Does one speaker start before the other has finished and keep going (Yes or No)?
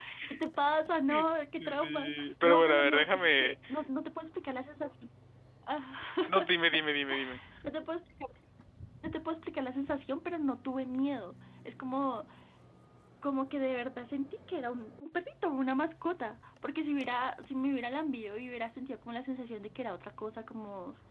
Yes